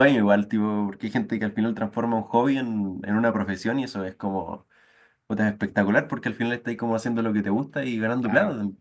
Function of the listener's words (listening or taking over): taking over